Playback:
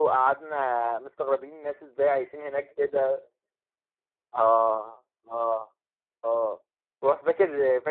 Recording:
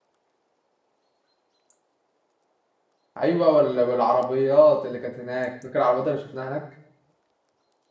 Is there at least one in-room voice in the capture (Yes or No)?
Yes